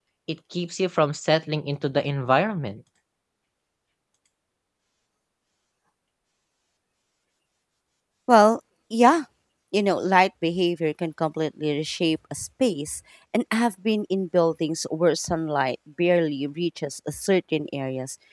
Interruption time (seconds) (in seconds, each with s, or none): none